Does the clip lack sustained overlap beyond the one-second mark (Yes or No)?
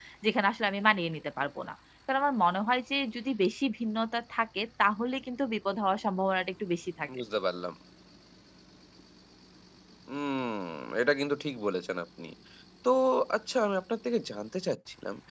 Yes